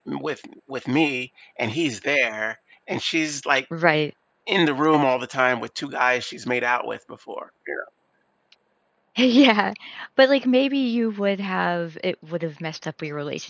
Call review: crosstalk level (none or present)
none